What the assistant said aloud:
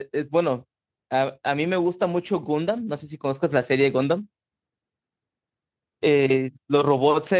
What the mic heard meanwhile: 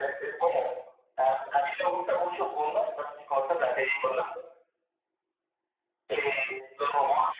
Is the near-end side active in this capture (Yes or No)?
No